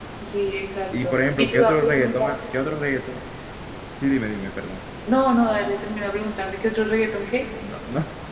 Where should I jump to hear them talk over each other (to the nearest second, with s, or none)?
1 s